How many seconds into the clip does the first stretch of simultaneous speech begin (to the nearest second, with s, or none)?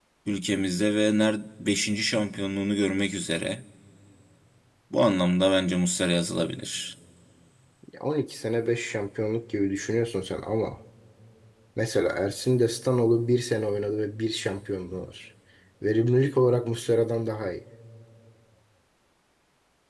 none